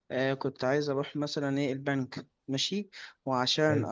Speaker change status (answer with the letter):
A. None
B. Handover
A